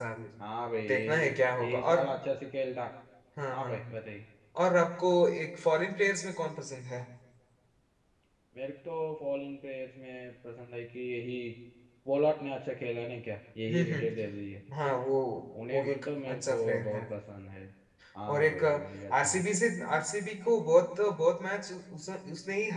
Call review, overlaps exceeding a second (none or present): present